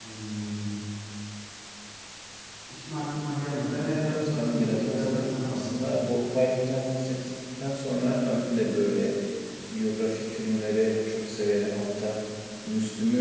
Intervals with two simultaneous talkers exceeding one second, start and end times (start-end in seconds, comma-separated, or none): 4.0-5.8